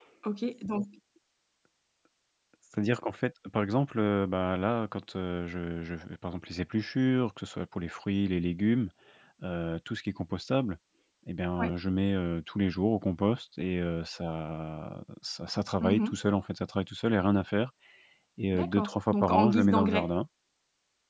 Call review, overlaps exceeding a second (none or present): present